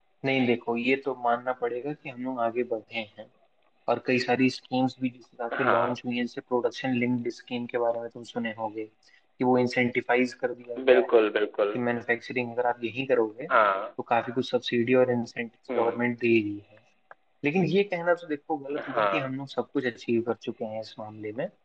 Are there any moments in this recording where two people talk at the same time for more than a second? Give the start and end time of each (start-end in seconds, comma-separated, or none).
none